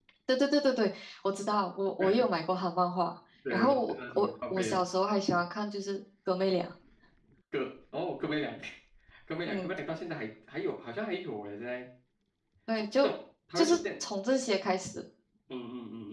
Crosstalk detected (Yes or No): Yes